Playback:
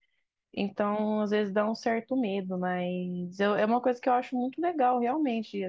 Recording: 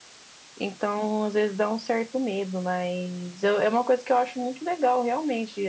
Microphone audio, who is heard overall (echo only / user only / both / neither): echo only